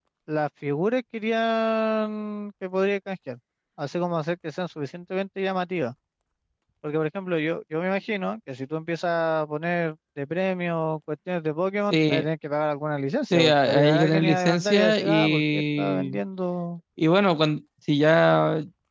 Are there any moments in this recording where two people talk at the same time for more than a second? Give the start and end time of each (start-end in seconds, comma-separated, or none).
13.3-16.2